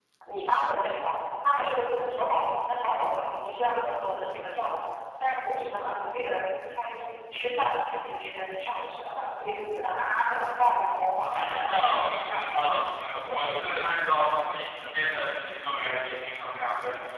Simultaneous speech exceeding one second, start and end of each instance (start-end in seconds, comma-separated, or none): 11.3-12.6